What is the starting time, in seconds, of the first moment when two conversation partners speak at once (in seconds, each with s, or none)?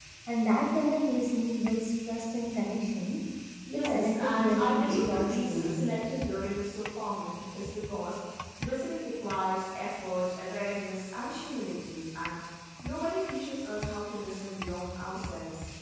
3.7 s